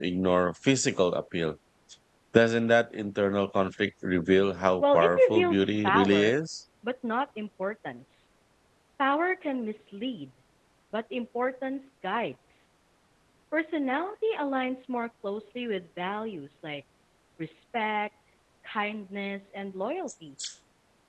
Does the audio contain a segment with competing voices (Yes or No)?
Yes